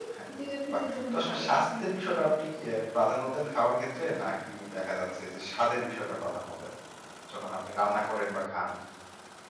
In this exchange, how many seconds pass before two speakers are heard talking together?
0.7 s

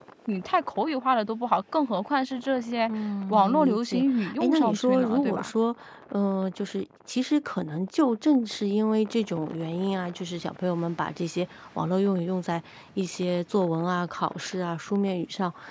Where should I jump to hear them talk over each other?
3.3 s

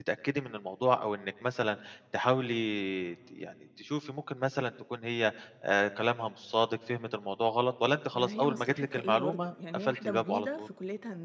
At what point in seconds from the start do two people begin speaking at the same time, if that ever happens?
8.1 s

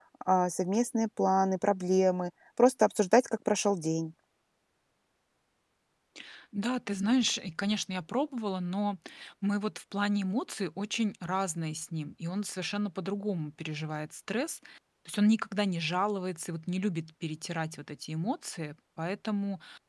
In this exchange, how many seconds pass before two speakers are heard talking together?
none

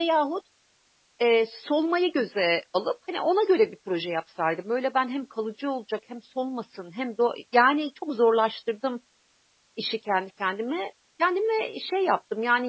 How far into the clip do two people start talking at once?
none

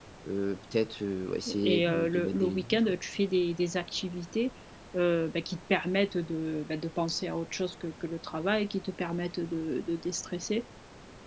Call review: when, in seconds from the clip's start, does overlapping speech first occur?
1.5 s

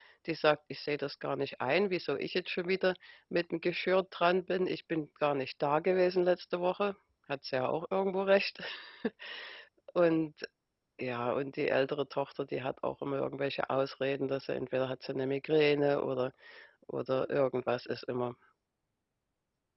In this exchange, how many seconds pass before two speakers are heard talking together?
none

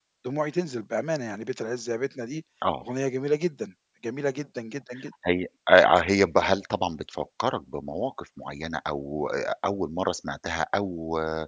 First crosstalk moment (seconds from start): none

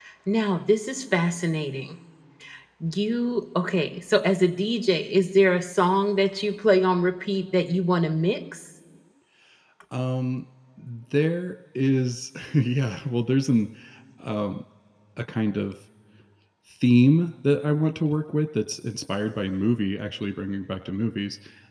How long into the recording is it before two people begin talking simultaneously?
none

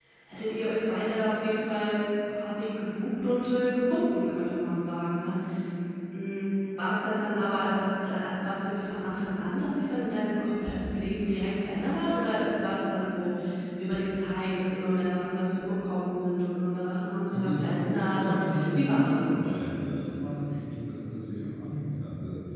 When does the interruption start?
17.3 s

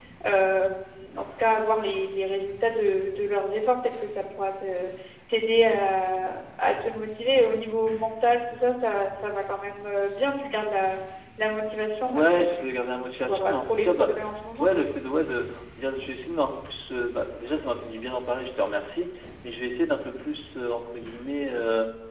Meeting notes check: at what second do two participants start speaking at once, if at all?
12.0 s

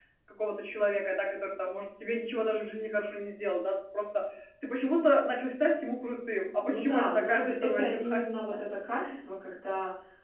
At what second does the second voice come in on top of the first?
6.6 s

